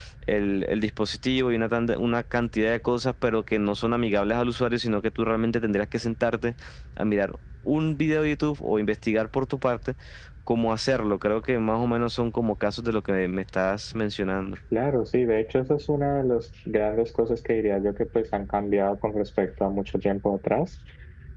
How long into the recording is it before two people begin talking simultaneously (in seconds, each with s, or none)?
none